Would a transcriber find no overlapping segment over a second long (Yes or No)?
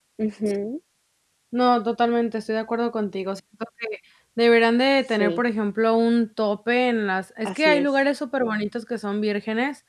Yes